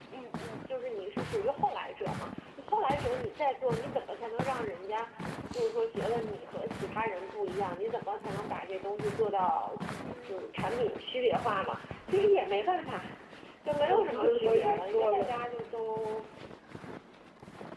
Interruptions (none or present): present